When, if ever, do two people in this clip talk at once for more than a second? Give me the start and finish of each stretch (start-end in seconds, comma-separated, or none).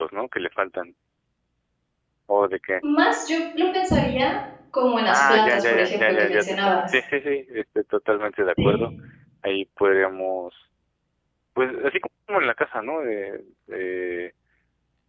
5.1-6.8